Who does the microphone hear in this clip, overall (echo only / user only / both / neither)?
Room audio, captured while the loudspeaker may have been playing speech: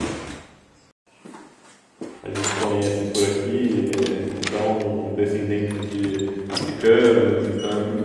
user only